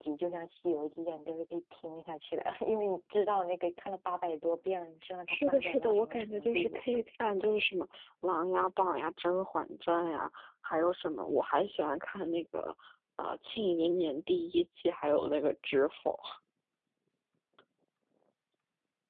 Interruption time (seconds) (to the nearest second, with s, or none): 5 s